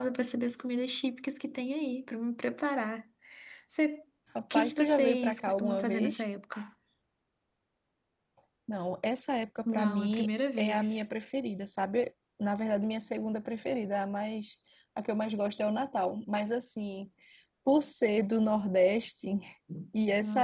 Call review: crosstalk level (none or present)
present